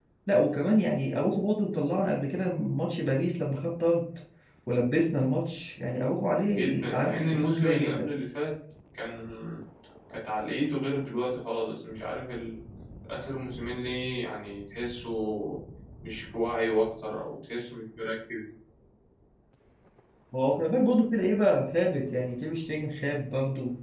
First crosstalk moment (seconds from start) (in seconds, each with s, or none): 6.5 s